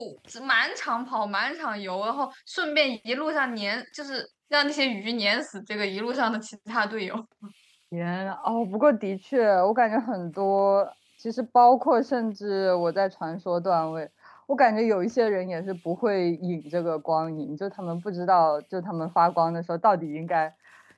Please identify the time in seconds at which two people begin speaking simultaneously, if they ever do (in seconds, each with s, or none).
none